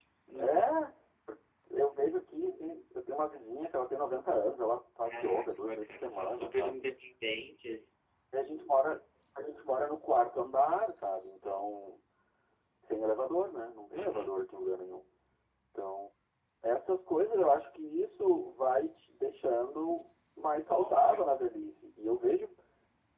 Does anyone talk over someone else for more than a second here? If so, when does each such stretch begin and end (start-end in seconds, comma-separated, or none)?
5.1-6.8